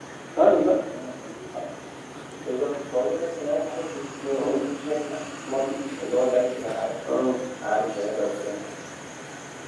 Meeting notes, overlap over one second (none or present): none